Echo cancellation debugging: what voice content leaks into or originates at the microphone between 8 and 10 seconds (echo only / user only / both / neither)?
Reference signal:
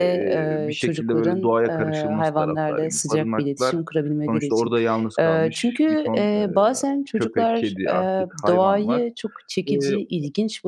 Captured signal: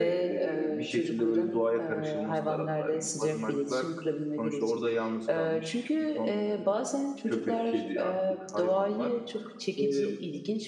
echo only